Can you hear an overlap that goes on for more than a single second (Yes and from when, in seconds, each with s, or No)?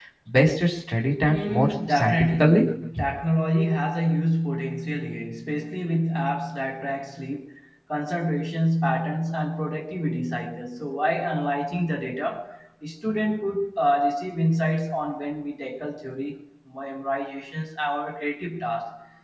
Yes, from 1.3 s